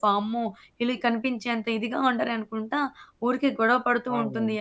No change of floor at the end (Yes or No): Yes